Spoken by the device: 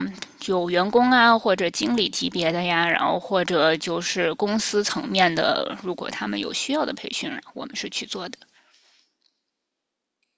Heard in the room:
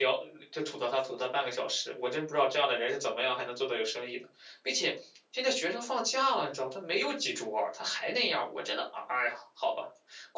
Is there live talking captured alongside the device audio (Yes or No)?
Yes